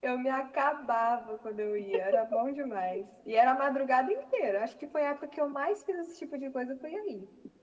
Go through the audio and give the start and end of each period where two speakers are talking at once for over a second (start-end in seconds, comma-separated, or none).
none